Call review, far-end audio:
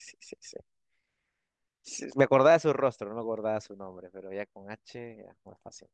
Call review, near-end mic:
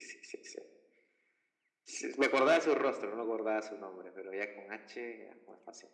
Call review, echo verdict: present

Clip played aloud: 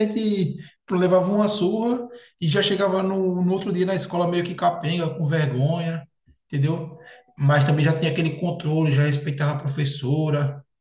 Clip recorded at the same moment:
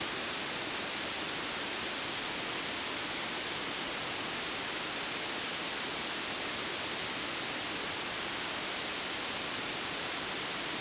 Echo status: none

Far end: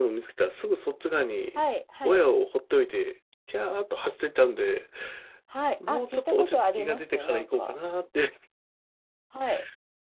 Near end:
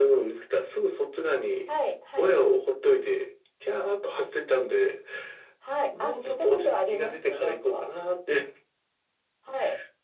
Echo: present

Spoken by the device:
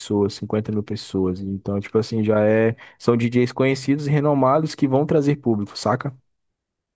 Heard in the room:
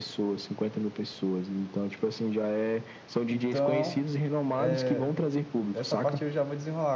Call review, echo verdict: present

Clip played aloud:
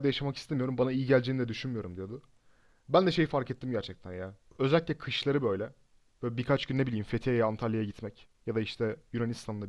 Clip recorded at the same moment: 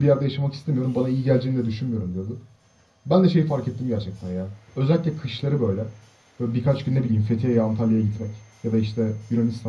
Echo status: present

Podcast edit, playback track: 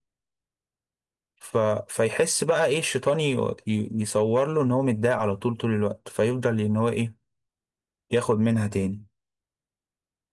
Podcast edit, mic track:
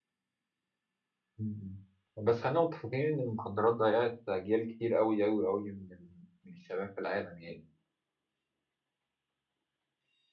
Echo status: none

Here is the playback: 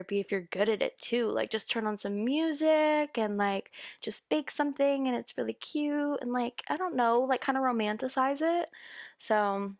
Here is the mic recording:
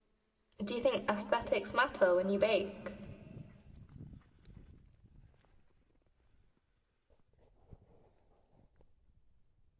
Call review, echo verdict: none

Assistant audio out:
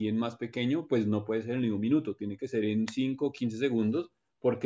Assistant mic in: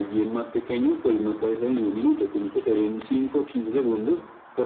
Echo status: present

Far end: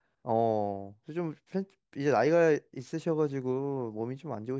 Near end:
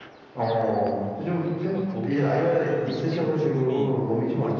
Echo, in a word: present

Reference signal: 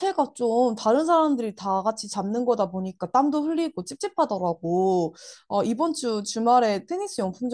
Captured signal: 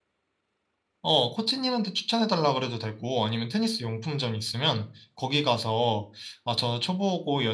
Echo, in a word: none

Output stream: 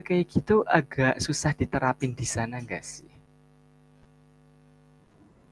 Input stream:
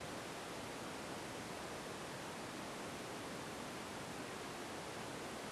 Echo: none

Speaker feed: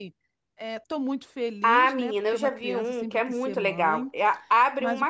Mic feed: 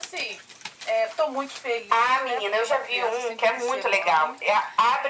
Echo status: present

